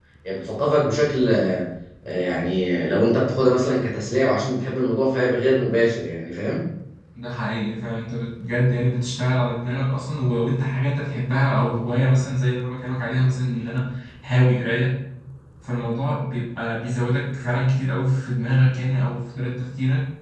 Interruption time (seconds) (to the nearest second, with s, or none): none